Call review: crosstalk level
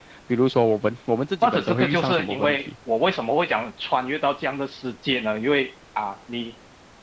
present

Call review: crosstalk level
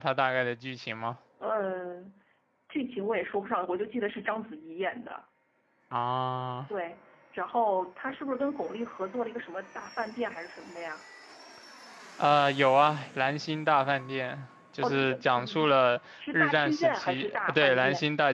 present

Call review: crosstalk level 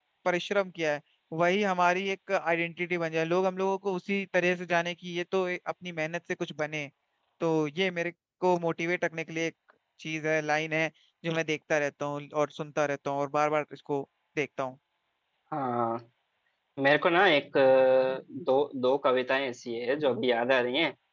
none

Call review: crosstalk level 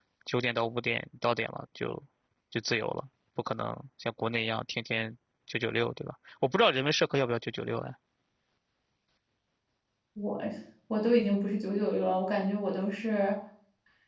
none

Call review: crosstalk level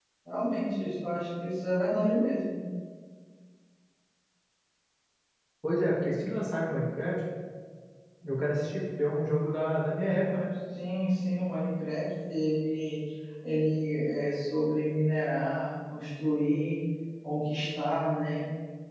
none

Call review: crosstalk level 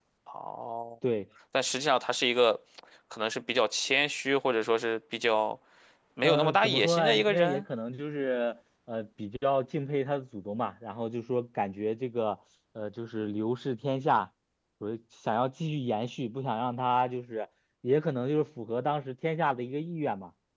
present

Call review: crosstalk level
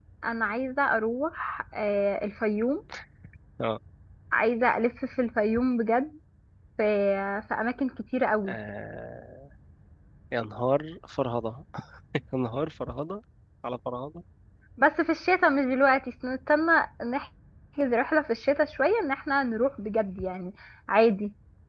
none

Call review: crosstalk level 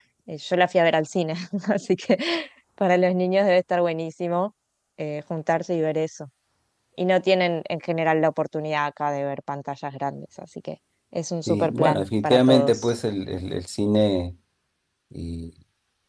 present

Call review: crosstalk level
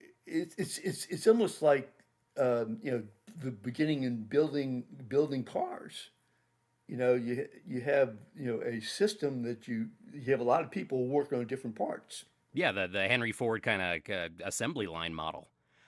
none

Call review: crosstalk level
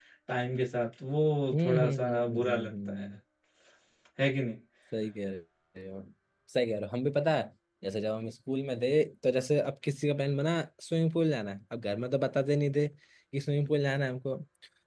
present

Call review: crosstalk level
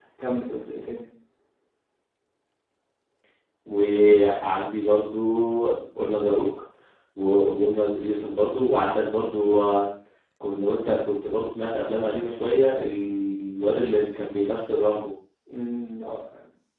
none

